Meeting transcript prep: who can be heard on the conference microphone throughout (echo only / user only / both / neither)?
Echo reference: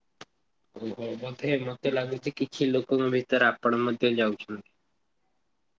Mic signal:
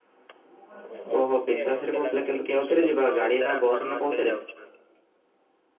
both